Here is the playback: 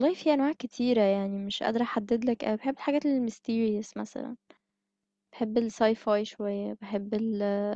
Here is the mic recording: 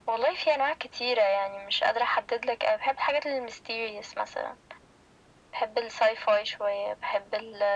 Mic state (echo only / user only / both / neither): echo only